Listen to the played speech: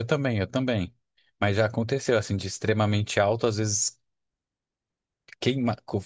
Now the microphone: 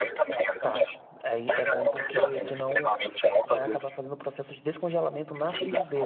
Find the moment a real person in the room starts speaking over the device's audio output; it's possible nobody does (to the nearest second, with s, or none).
1 s